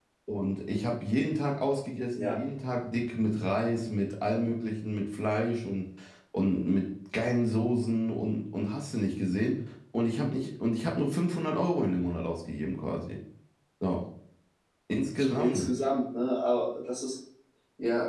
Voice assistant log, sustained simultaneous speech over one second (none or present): none